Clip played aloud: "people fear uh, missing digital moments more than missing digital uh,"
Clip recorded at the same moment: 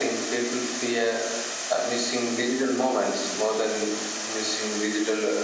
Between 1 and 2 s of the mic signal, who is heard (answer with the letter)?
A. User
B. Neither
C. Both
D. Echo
D